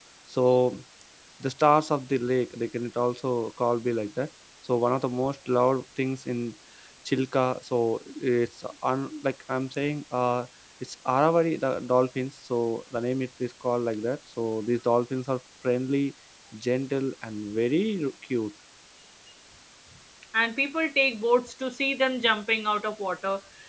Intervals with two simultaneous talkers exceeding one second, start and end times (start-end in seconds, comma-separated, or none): none